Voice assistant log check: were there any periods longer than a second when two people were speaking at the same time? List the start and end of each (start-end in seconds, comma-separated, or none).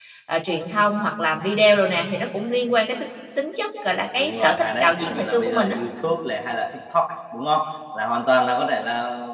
4.2-5.8